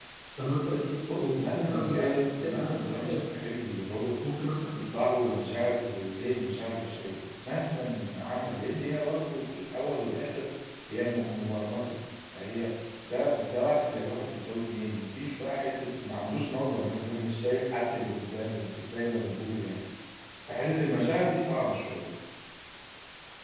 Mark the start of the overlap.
1.0 s

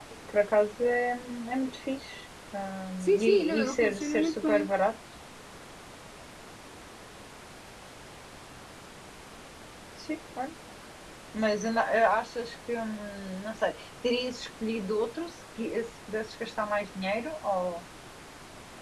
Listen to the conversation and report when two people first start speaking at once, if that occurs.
3.0 s

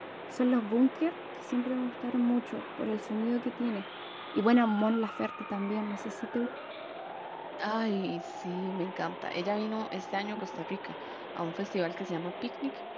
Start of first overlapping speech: none

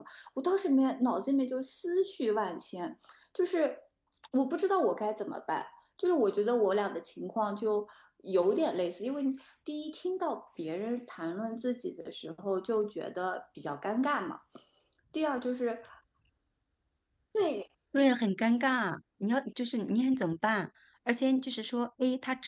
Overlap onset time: none

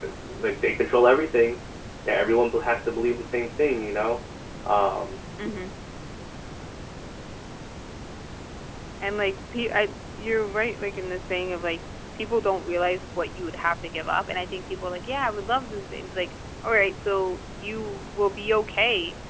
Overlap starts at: none

